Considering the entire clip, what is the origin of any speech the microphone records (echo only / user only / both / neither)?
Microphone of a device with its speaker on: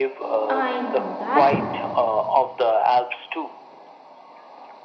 both